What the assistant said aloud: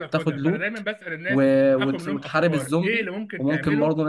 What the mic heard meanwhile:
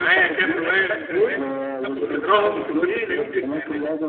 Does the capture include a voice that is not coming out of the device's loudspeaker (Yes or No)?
Yes